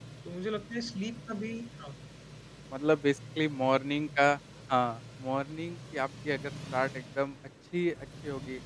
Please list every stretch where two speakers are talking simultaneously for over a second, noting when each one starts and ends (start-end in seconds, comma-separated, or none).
none